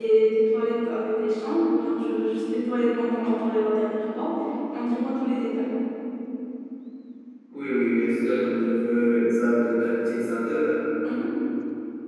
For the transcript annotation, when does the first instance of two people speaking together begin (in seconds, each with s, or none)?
none